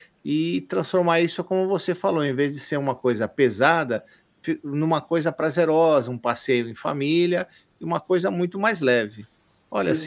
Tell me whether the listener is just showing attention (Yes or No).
Yes